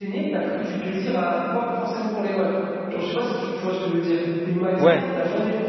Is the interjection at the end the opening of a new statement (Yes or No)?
No